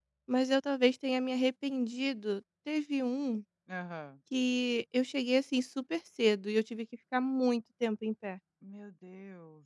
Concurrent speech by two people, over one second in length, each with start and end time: none

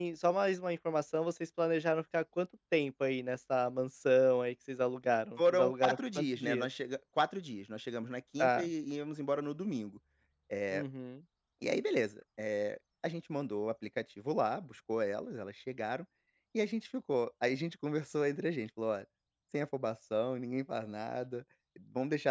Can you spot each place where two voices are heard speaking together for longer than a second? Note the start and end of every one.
5.4-6.7

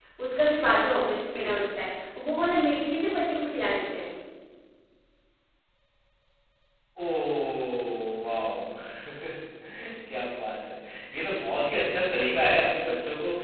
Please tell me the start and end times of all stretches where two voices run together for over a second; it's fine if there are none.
none

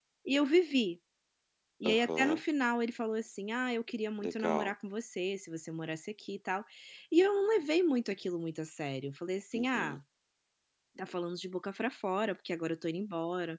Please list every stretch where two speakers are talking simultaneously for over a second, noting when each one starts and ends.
none

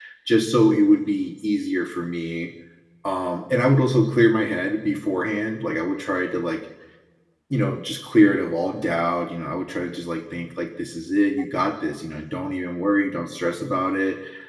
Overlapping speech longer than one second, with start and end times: none

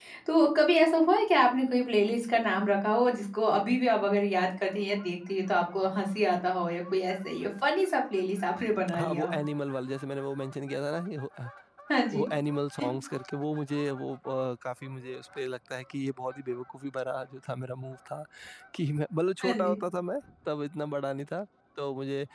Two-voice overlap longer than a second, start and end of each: none

